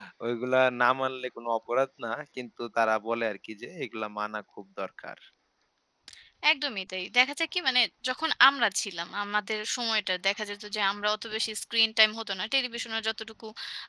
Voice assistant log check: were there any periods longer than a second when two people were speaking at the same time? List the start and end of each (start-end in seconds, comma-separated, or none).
none